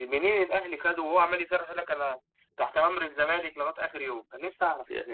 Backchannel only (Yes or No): No